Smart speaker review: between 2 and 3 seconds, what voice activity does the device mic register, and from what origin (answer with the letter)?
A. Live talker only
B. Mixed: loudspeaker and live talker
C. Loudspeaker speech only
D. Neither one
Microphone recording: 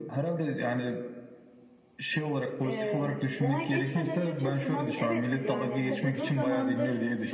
B